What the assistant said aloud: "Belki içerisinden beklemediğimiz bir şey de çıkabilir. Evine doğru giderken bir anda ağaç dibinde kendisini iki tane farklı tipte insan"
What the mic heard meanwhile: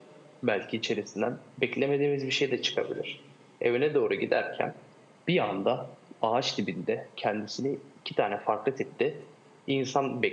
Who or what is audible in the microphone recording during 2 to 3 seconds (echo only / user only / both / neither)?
echo only